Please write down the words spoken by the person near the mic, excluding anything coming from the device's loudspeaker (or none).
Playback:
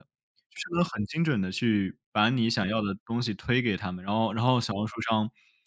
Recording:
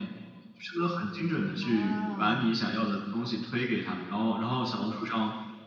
啊。